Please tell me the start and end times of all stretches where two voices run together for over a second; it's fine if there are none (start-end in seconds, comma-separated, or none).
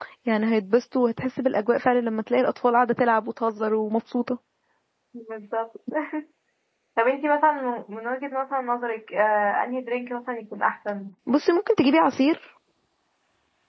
none